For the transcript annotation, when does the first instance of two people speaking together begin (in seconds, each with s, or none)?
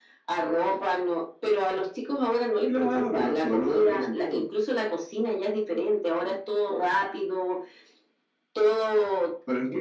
2.7 s